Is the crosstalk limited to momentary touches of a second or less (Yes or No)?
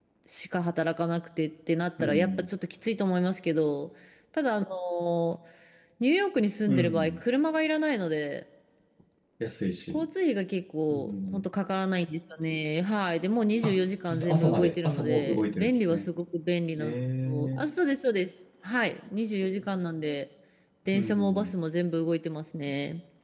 No